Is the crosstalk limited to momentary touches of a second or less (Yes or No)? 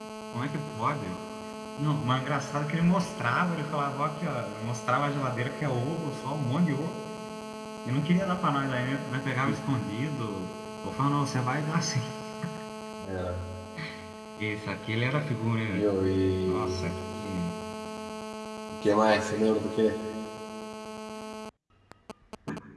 Yes